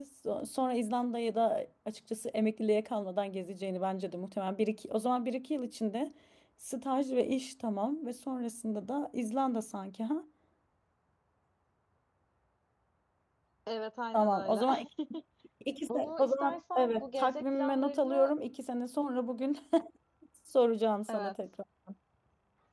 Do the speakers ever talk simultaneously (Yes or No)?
Yes